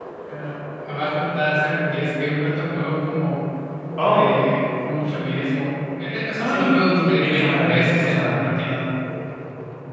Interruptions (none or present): present